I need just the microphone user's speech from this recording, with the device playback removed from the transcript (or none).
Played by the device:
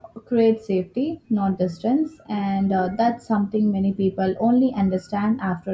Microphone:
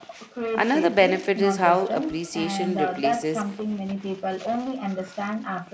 Another benefit is how appreciation replaces